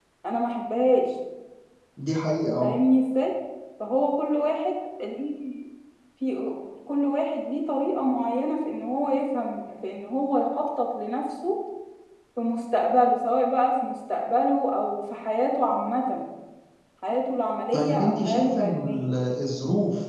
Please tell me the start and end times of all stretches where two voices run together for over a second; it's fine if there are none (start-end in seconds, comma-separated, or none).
17.7-19.1